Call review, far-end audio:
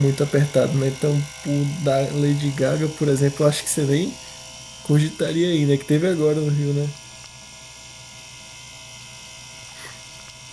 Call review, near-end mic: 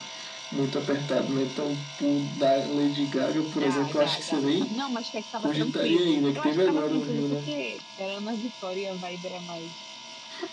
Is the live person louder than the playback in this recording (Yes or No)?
No